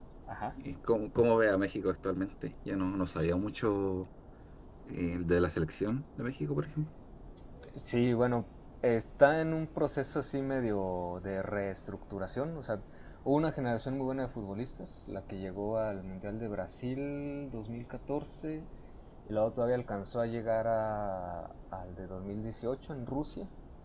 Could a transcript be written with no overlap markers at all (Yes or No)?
Yes